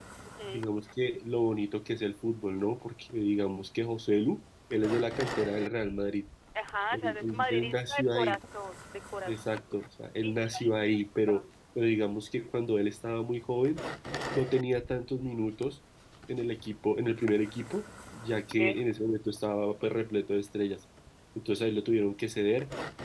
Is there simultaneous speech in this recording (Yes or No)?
Yes